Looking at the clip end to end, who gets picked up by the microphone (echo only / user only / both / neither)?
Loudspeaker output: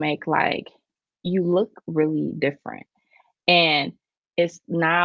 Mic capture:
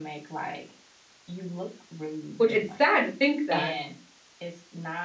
both